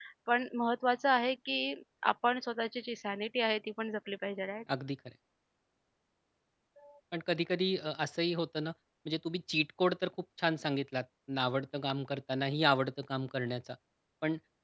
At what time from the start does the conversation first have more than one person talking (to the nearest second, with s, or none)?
none